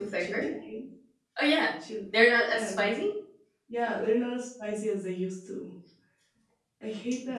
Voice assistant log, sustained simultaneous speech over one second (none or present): none